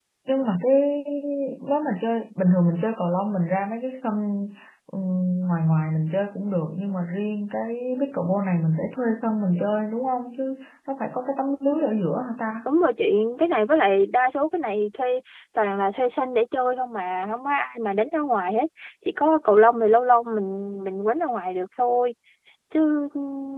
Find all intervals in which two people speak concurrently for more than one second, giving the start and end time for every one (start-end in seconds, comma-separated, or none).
none